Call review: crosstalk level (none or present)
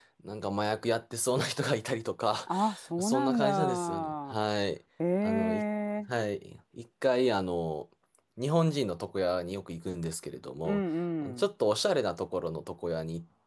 present